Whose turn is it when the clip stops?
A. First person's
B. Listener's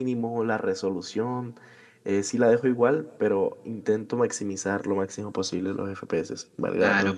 B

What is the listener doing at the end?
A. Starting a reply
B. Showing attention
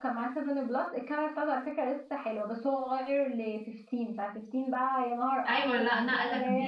A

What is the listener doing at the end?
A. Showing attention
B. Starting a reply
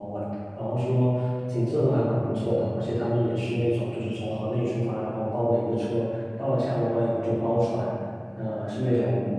A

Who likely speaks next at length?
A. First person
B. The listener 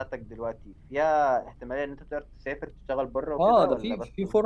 B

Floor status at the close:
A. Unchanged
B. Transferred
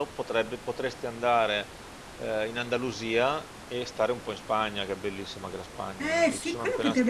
B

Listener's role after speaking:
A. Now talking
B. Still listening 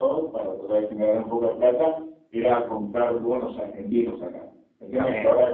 B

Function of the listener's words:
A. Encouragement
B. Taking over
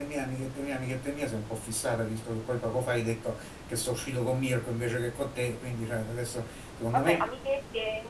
B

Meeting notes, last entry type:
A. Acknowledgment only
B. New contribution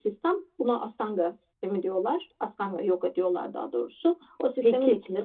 A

